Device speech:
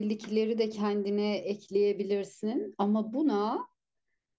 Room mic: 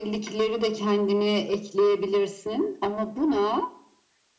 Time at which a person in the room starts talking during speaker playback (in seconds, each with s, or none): none